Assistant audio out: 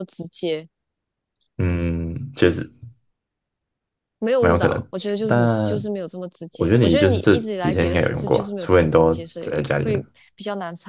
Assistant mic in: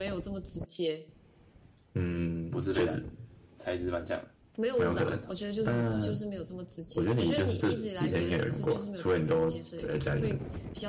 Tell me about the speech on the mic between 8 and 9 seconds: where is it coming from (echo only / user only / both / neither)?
echo only